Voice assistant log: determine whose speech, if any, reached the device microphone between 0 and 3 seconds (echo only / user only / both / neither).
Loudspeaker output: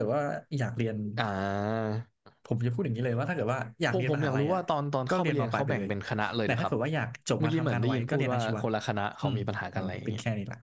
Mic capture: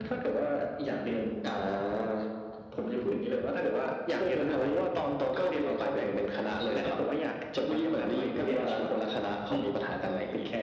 echo only